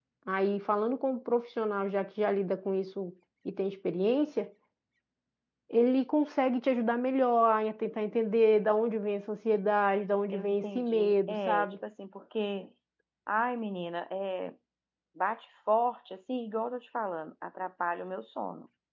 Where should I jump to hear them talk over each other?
10 s

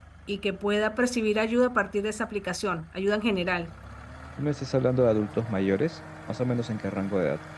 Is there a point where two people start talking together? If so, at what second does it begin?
none

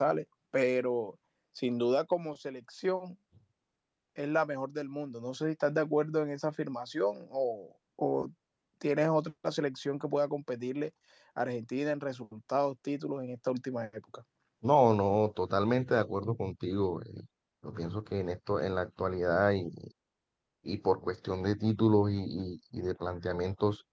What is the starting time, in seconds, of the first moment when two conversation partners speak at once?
none

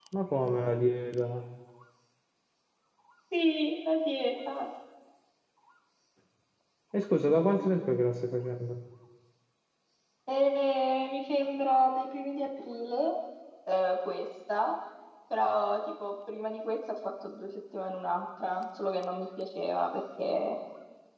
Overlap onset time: none

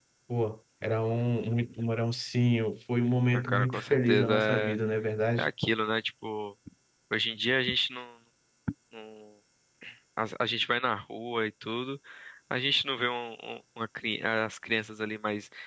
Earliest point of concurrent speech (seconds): 3 s

